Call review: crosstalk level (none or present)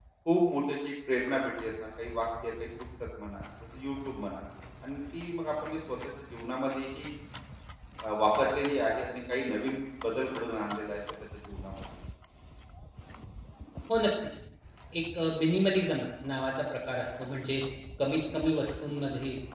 none